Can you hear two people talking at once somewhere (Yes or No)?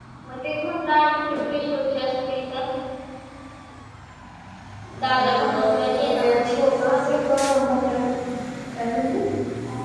Yes